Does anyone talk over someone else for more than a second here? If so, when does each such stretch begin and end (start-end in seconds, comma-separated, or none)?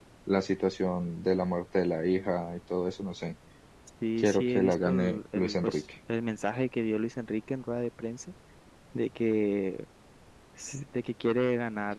4.2-5.8